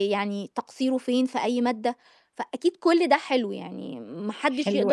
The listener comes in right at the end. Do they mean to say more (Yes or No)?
Yes